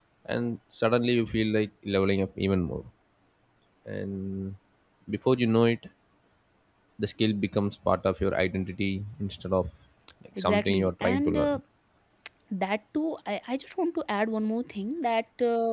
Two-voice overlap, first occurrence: 10.4 s

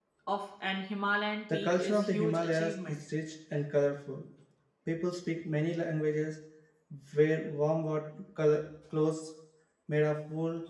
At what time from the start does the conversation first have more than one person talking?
1.5 s

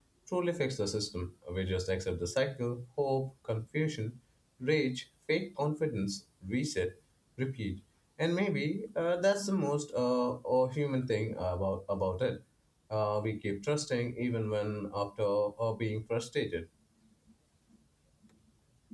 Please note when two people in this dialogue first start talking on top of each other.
none

